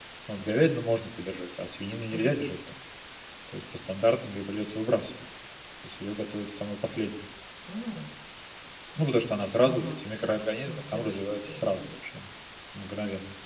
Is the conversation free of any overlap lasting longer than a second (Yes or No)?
No